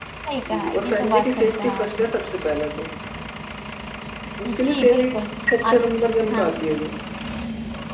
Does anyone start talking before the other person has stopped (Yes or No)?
Yes